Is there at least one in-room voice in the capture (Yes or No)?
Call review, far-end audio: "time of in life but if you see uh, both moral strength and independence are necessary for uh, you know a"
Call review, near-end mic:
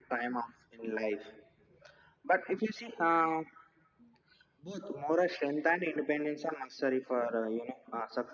No